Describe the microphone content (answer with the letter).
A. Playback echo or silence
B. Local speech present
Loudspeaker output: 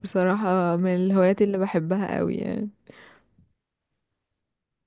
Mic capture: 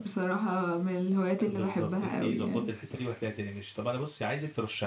B